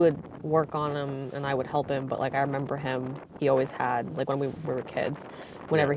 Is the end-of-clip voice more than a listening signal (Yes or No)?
No